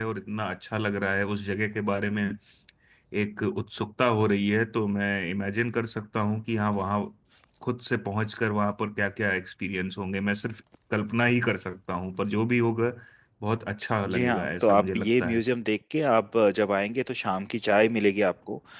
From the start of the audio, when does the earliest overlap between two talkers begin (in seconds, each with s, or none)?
14.1 s